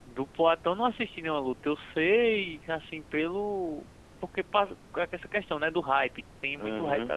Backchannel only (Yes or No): No